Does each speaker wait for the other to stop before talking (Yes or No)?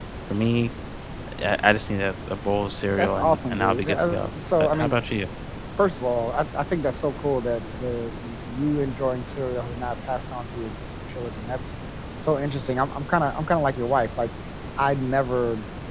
No